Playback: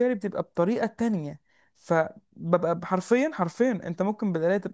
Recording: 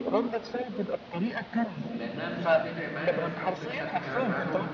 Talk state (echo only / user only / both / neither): both